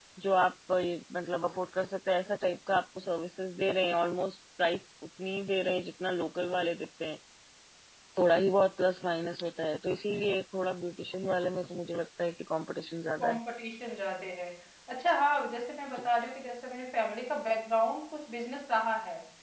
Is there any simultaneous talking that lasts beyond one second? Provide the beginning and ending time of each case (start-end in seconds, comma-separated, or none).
none